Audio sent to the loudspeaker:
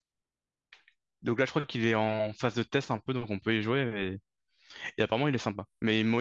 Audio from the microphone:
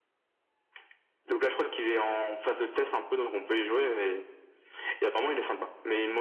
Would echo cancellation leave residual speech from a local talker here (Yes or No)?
No